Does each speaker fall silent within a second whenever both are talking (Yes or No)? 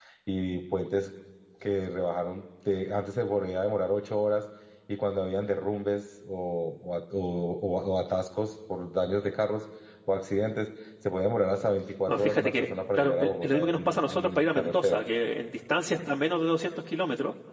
No